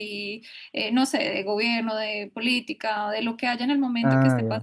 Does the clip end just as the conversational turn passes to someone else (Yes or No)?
No